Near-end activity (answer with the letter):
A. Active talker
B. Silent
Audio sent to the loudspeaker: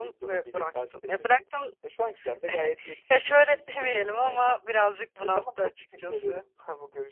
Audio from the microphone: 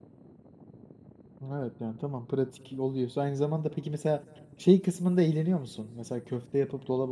A